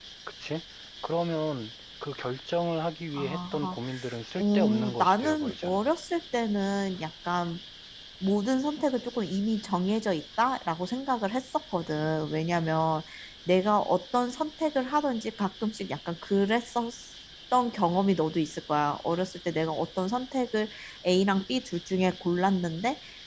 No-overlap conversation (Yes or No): No